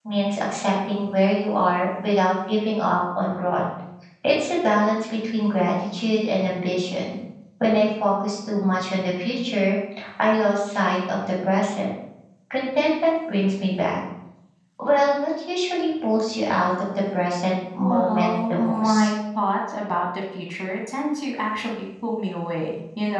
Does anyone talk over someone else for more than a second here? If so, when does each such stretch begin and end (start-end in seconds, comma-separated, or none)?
17.8-19.1